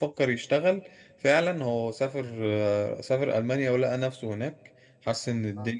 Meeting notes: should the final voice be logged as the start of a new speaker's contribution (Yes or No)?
No